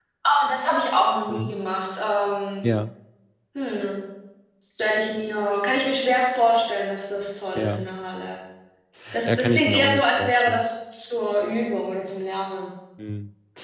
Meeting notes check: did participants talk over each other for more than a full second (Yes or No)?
Yes